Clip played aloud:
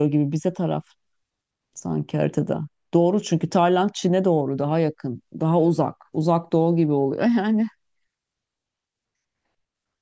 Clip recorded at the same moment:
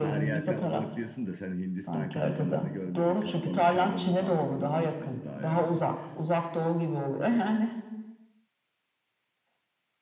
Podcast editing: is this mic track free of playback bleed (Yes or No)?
No